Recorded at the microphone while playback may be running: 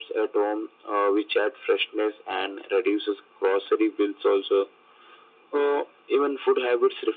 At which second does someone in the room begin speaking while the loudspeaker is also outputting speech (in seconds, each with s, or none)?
none